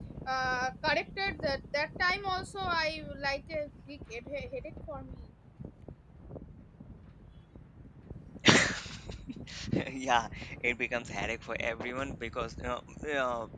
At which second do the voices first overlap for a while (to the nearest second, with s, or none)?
none